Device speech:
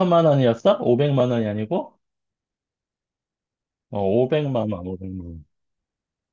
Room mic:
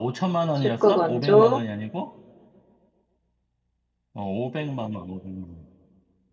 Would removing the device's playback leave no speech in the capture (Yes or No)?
No